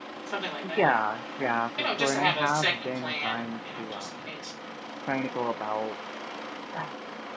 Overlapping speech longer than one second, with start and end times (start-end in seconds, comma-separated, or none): 1.8-4.2